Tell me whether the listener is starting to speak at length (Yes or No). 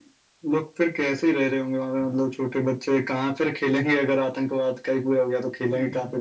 Yes